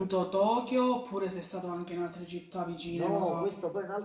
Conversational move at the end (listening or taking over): taking over